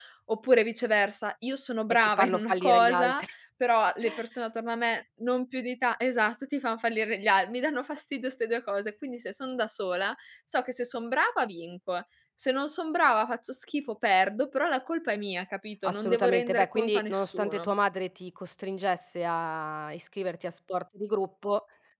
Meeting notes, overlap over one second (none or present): present